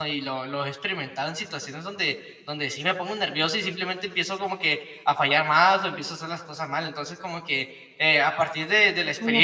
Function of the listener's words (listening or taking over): taking over